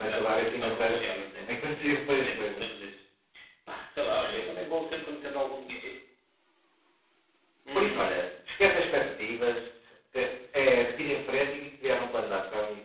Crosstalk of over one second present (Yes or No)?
Yes